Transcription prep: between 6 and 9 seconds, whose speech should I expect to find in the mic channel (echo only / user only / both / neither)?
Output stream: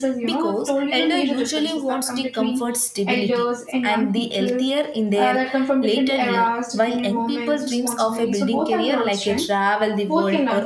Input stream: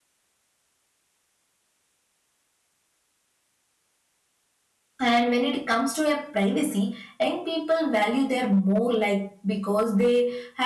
user only